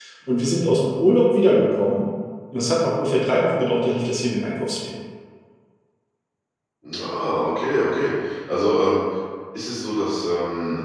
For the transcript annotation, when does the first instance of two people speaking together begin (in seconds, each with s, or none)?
none